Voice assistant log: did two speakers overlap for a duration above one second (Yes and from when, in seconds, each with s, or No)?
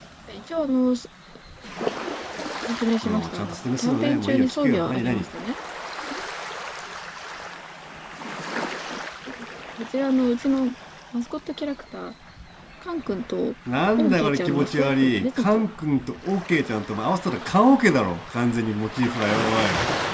Yes, from 3.0 s